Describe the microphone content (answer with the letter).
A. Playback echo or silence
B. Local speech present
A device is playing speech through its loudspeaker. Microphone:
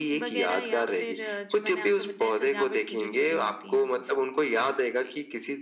A